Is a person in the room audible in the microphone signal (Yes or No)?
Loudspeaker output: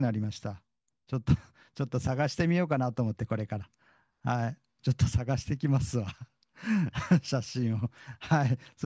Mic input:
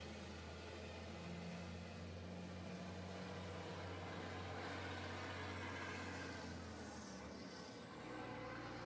No